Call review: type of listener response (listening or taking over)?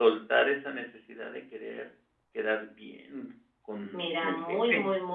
taking over